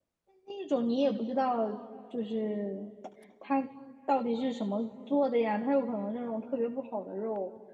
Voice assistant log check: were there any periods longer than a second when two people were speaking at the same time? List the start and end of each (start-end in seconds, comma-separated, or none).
none